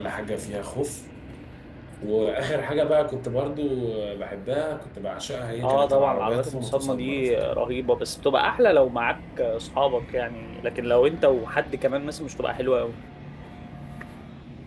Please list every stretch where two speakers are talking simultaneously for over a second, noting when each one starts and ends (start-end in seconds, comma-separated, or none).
5.6-7.5